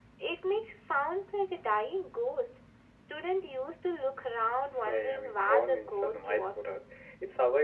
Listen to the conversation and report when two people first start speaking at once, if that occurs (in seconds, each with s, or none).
4.8 s